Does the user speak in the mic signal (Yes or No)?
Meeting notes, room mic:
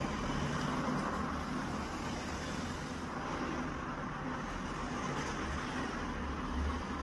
No